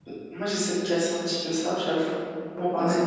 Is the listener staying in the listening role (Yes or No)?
Yes